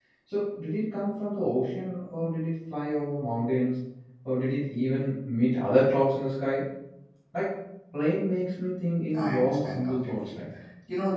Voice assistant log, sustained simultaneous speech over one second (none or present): present